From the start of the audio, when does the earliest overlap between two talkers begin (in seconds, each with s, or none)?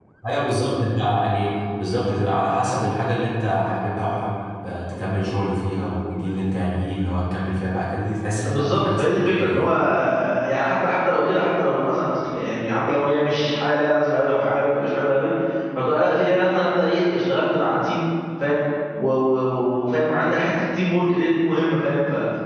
8.4 s